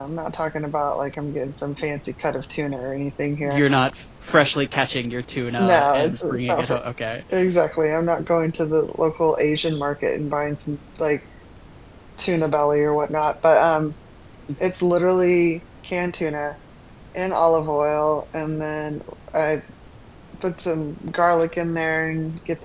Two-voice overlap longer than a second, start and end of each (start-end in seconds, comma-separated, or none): 5.6-6.8